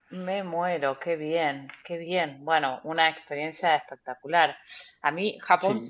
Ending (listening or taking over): listening